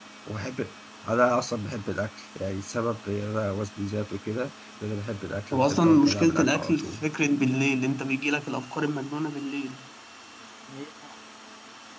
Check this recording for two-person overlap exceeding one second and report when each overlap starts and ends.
5.5-7.0

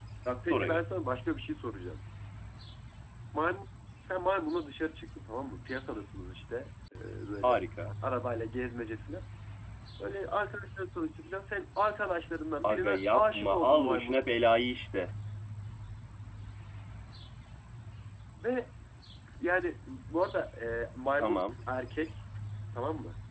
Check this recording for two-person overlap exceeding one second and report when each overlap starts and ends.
12.6-14.2

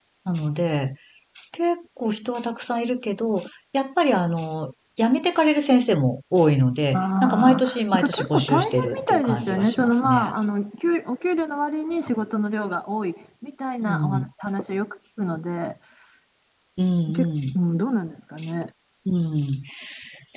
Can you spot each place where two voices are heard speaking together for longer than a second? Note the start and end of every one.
7.0-10.3

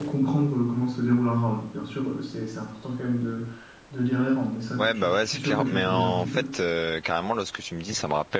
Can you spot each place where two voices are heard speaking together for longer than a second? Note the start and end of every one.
4.8-6.4

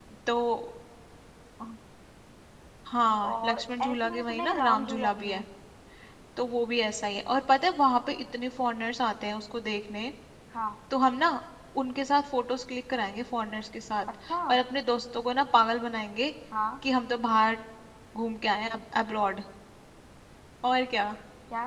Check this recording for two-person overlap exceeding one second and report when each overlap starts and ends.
3.2-5.4

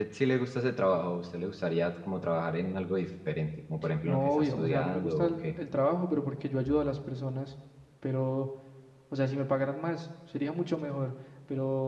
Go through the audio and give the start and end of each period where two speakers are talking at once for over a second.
4.0-5.5

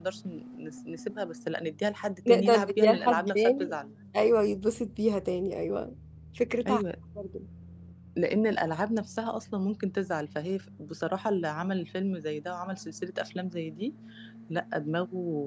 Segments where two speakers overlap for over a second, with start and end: 2.3-3.7

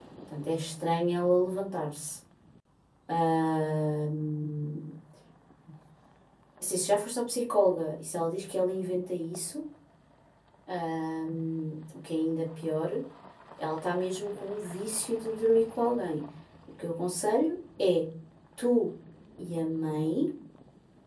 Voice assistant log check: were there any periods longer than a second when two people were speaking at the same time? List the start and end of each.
none

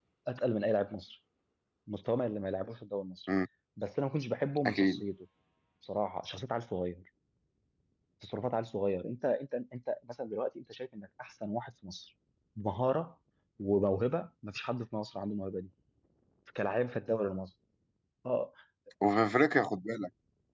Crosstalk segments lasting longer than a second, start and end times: none

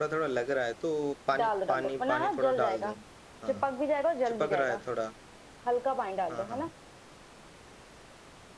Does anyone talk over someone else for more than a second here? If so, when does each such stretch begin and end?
1.4-2.9

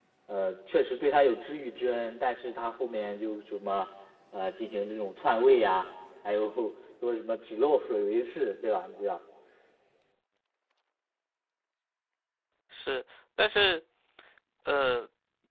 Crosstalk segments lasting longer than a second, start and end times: none

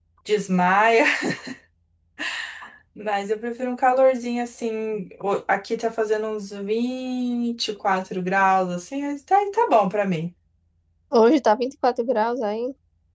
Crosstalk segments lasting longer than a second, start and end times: none

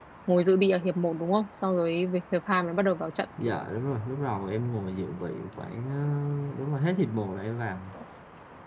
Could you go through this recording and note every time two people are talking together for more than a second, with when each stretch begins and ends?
none

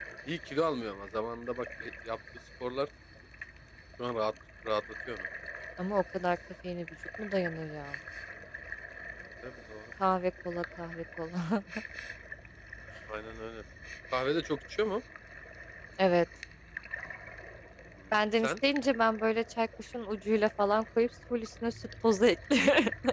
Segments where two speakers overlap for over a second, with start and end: none

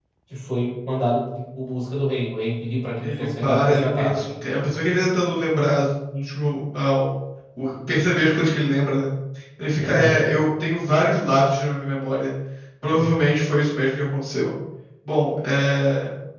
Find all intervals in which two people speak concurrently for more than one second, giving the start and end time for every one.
3.0-4.2

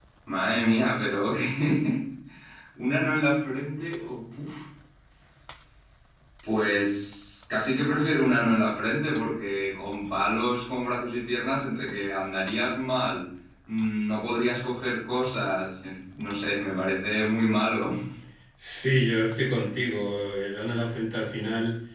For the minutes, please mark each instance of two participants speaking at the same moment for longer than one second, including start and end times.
none

